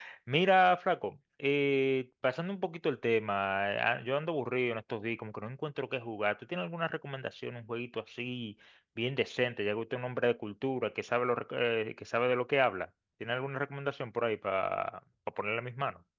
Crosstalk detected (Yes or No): No